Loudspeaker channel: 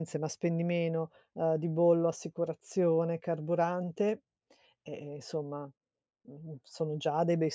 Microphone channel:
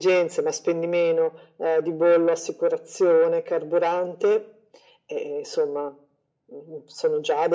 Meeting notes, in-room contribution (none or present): none